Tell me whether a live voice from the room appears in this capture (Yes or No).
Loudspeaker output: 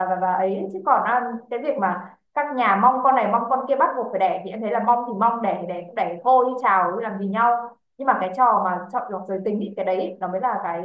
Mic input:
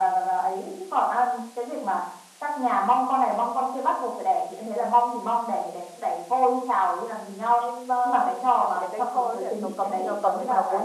Yes